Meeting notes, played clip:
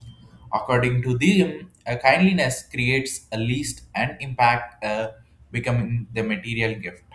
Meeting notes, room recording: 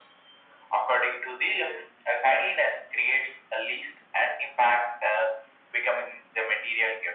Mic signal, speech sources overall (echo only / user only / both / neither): echo only